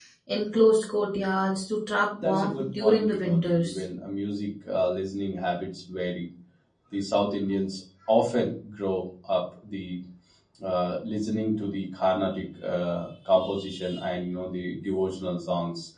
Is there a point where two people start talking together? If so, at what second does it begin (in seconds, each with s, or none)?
2.2 s